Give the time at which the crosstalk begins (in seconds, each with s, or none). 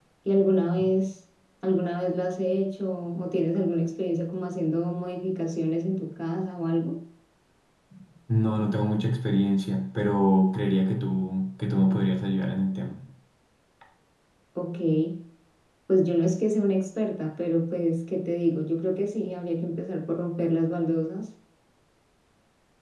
none